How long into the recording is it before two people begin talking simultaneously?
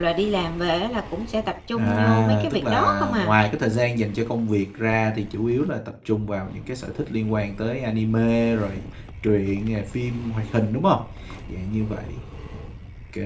1.8 s

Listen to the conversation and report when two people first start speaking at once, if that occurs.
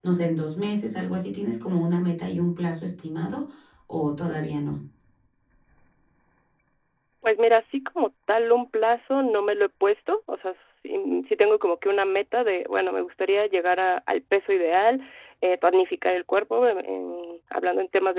none

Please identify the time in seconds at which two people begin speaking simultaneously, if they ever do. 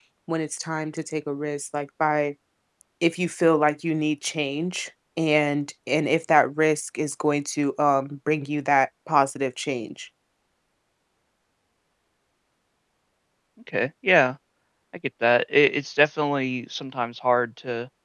none

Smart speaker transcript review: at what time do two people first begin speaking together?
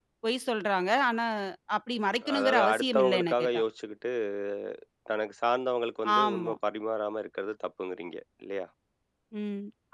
2.4 s

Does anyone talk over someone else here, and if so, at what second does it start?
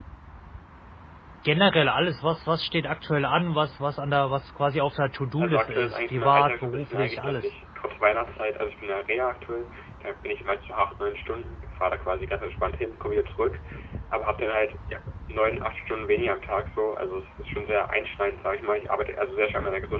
5.4 s

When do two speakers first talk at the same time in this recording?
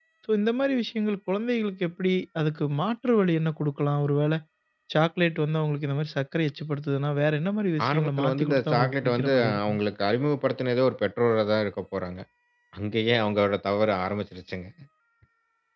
7.8 s

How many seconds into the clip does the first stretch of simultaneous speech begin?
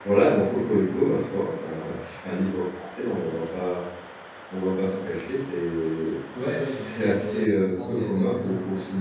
6.3 s

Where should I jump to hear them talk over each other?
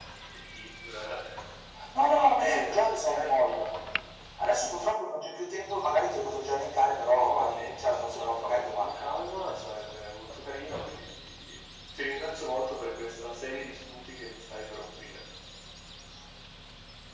2.4 s

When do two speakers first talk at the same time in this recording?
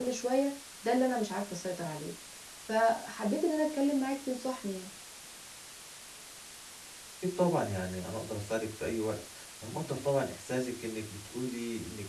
none

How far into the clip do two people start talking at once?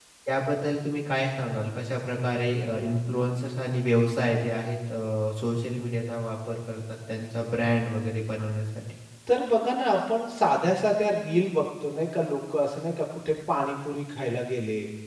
none

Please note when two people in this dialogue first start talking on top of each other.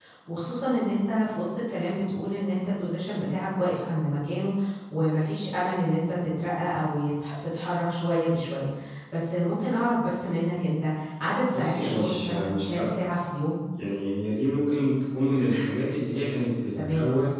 11.5 s

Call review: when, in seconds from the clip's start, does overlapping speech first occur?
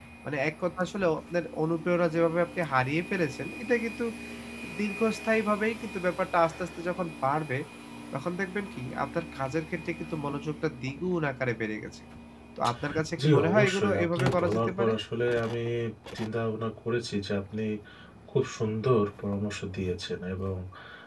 13.2 s

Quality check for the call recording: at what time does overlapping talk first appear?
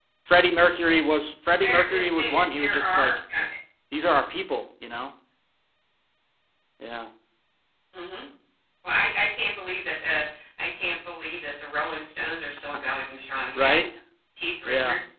1.6 s

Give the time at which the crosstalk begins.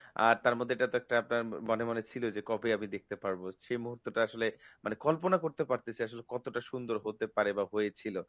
none

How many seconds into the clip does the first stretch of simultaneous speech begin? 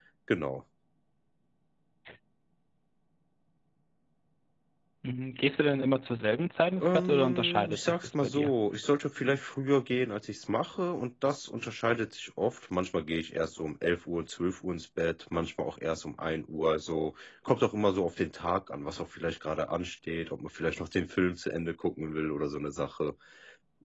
6.8 s

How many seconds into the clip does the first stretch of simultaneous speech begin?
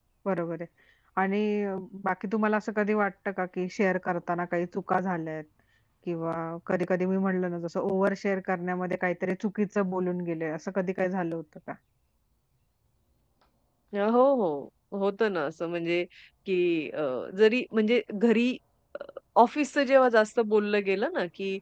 none

